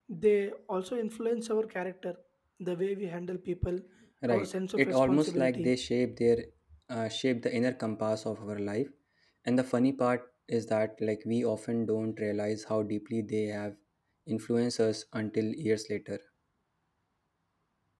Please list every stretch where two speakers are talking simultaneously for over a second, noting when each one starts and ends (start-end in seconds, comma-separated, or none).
4.3-5.7